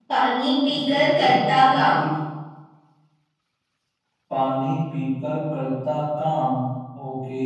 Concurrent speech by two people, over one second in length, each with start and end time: 0.7-2.0

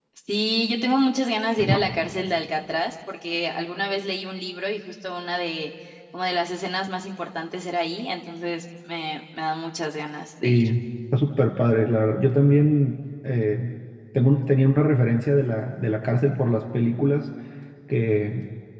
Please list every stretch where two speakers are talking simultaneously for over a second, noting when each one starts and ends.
none

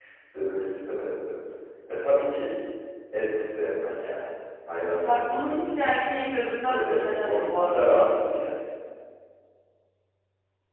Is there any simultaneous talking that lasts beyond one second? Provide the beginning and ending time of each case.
6.6-8.1

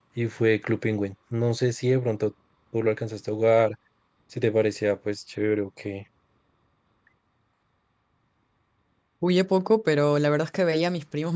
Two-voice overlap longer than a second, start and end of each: none

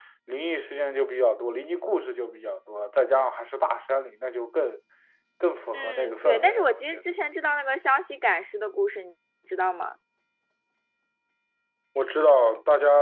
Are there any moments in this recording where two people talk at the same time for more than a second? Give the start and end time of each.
5.7-7.0

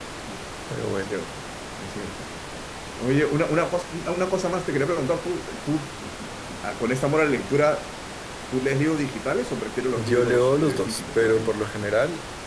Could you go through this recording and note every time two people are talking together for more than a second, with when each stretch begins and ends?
10.0-11.5

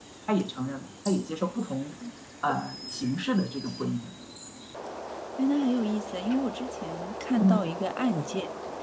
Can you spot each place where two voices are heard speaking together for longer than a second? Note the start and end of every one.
none

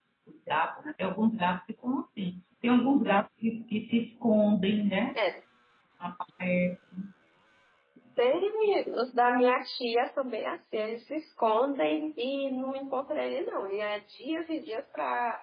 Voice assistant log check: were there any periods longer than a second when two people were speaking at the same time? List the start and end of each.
none

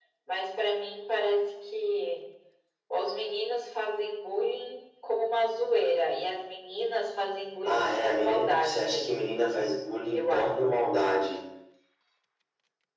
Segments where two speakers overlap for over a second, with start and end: 7.6-9.2

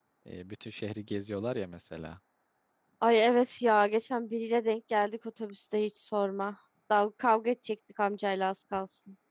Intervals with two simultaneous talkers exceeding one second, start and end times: none

